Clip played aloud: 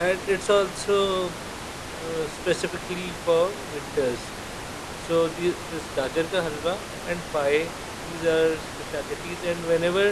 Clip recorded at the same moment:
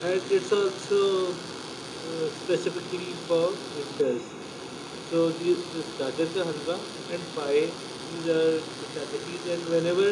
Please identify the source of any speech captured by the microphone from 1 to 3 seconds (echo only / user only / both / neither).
echo only